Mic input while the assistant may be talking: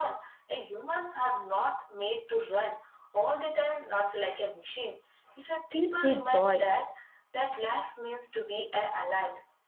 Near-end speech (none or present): present